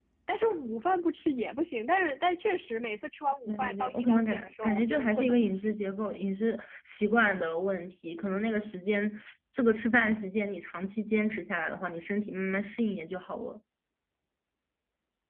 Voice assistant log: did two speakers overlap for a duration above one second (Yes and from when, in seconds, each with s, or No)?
Yes, from 3.5 s